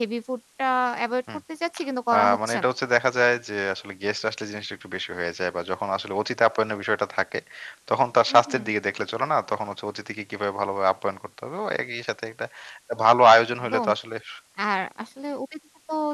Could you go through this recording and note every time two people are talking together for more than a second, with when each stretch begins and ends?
none

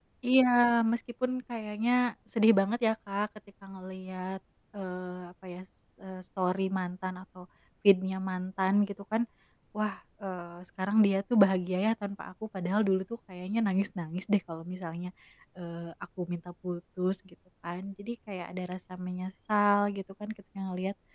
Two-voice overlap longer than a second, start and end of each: none

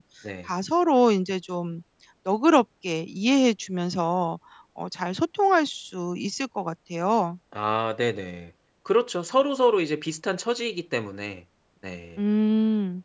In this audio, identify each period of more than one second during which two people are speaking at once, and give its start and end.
none

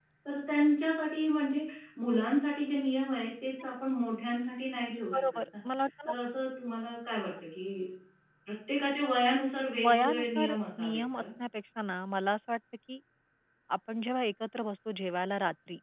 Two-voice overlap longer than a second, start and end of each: 9.8-11.2

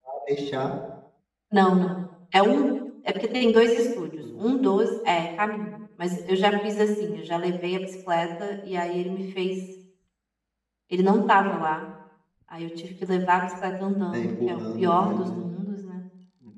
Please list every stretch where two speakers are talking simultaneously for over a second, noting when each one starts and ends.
14.1-15.4

